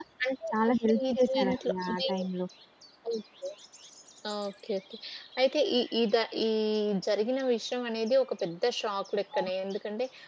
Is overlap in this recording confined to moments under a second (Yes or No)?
No